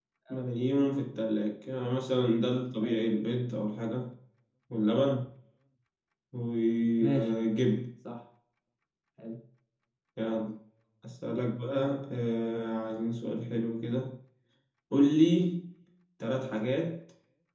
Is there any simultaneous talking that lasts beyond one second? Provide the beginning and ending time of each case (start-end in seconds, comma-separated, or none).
none